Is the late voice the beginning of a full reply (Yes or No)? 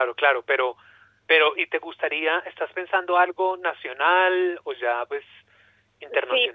Yes